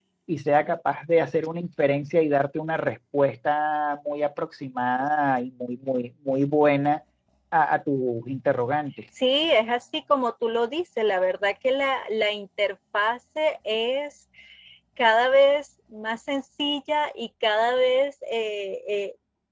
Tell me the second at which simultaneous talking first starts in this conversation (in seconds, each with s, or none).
none